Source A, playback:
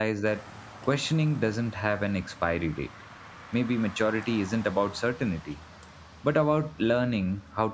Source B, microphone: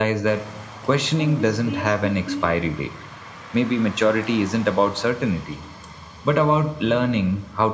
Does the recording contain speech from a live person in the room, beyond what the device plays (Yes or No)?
Yes